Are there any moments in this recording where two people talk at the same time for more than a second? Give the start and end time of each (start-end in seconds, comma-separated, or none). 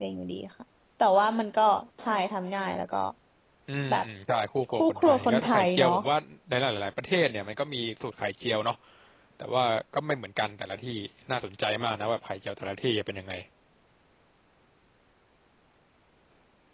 4.7-5.9